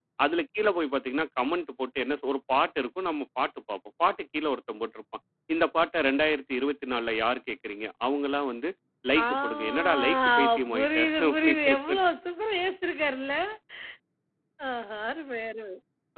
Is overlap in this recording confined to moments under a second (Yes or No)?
No